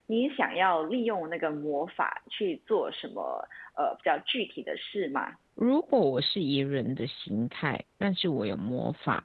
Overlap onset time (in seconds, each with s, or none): none